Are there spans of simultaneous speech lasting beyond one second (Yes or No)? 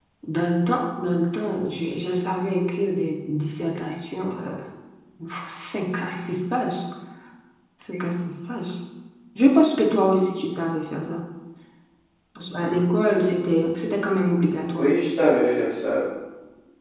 No